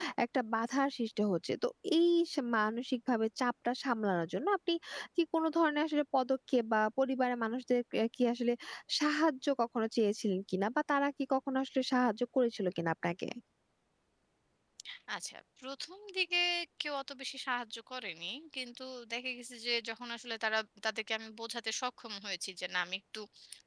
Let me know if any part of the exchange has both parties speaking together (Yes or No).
No